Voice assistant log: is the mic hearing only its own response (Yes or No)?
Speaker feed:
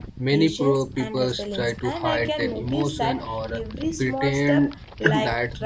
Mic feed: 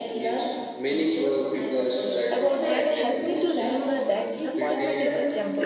No